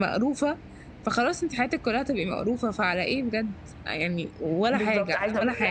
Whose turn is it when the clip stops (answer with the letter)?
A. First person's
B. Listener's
B